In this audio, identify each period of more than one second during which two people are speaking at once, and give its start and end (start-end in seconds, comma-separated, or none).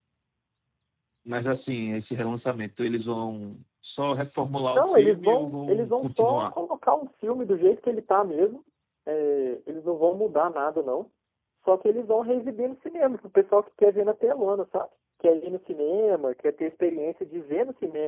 4.8-6.5